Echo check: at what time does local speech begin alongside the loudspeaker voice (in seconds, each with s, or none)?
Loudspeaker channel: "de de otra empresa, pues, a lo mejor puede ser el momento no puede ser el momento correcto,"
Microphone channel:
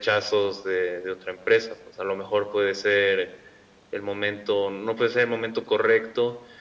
none